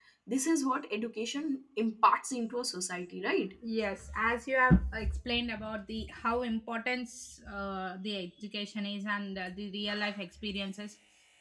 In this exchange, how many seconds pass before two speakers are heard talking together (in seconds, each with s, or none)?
none